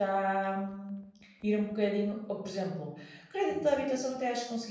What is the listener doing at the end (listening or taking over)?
listening